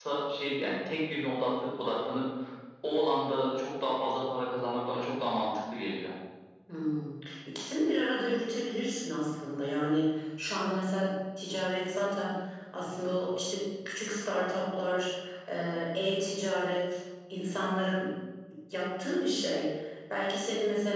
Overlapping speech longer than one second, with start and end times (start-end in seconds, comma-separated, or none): none